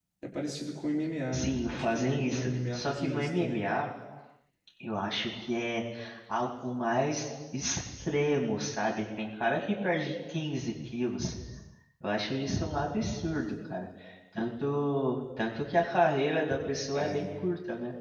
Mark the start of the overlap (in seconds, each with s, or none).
1.3 s